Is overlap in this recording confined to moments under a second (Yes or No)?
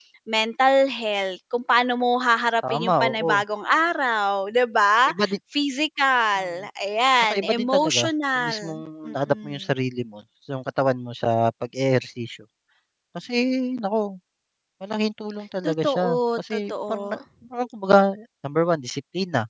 No